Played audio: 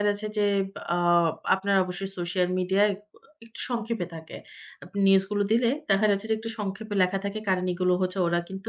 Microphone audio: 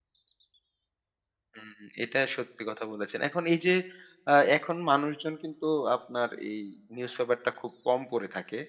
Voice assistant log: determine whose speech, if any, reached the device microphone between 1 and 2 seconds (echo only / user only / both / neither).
user only